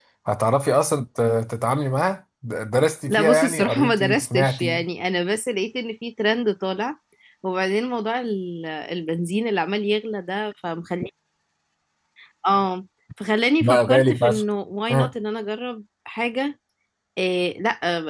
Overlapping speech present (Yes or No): Yes